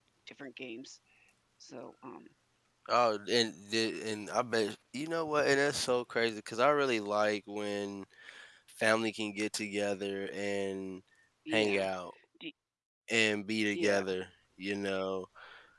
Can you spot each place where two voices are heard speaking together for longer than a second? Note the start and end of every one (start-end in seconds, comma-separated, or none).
none